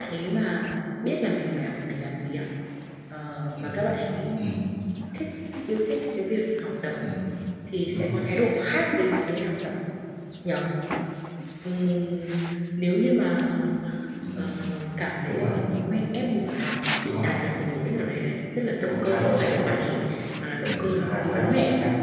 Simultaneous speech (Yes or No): Yes